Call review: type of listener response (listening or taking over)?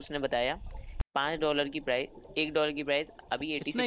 taking over